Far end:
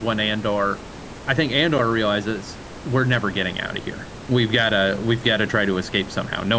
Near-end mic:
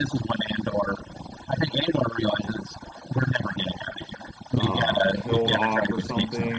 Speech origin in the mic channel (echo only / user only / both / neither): both